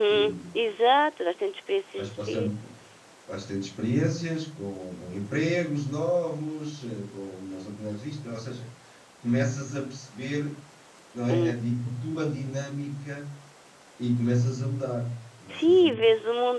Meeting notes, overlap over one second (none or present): none